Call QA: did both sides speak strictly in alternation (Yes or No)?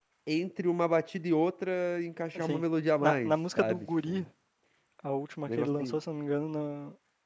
No